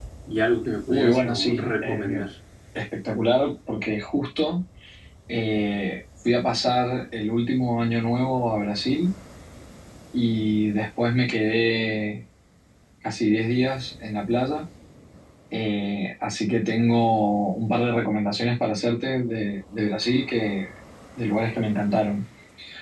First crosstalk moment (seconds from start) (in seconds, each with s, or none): 0.9 s